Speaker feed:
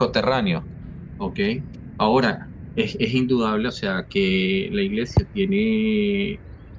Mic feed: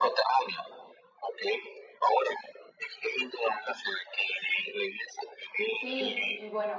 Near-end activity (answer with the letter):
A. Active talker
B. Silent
A